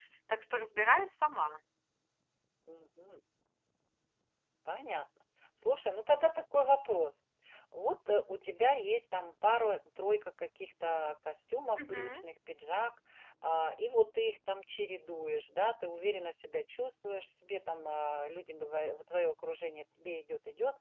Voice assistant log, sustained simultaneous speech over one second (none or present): none